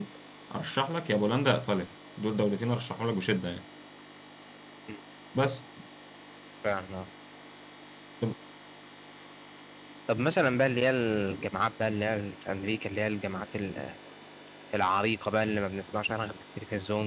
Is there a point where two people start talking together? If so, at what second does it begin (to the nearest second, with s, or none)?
none